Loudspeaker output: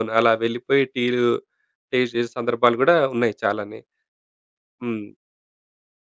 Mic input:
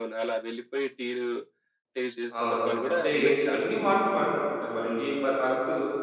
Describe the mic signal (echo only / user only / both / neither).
both